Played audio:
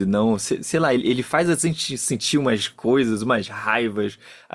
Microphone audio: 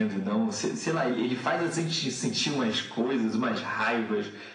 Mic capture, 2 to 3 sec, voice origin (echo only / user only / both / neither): echo only